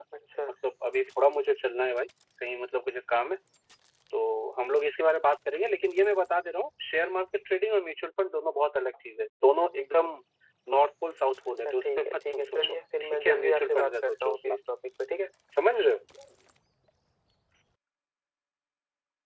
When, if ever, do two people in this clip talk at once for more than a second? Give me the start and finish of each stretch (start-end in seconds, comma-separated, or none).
11.6-14.6